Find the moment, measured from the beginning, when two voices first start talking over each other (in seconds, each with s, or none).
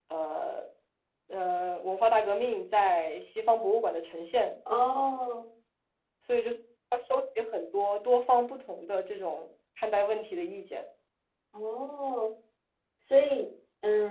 none